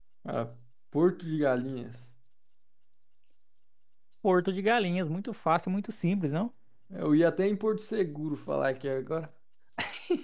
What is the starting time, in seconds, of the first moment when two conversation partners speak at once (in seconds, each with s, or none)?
none